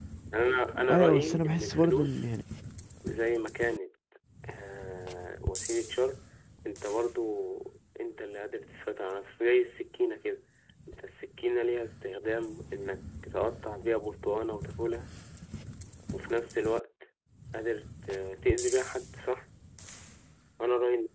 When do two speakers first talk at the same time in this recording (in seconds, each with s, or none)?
0.9 s